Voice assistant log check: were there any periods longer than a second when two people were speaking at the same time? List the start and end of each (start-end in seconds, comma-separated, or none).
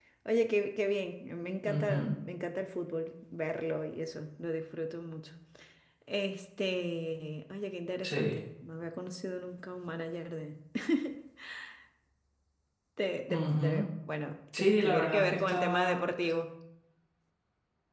14.6-16.3